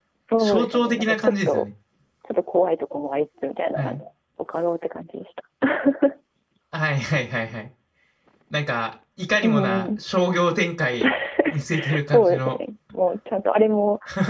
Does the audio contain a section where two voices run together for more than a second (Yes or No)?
Yes